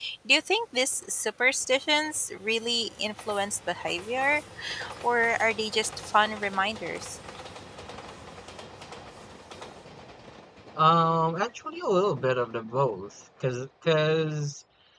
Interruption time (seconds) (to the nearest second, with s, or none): none